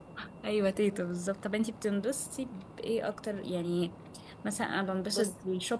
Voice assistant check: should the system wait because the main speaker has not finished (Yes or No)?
Yes